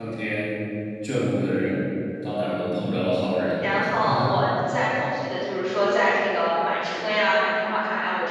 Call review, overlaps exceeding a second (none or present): none